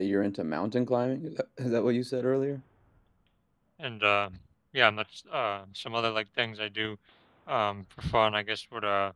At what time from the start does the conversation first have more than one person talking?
none

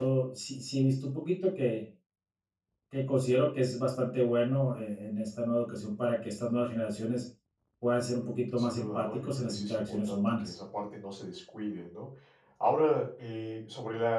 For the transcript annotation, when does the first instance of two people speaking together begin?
8.6 s

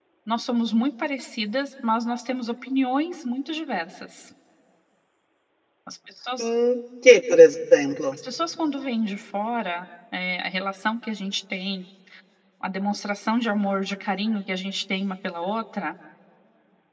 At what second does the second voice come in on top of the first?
none

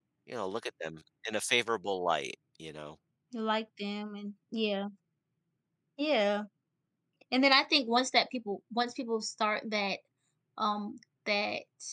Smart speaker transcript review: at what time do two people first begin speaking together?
none

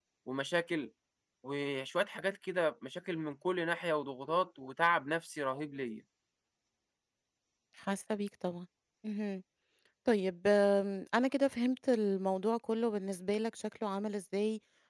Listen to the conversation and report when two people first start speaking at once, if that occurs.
none

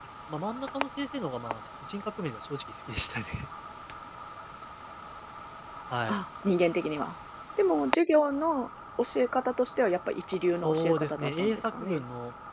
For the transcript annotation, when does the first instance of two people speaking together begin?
10.5 s

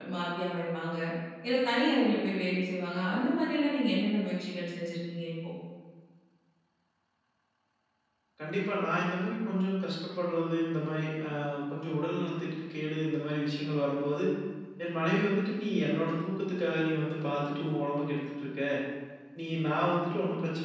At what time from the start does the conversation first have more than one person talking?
none

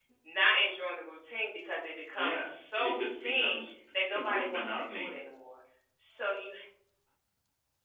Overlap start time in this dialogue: 2.1 s

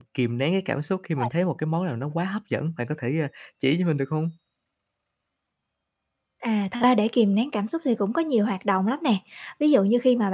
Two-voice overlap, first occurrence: none

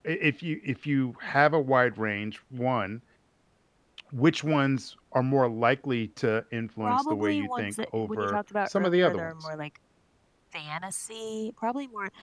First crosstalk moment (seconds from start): 6.8 s

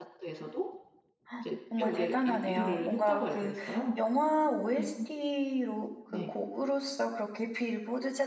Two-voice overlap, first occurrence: 1.8 s

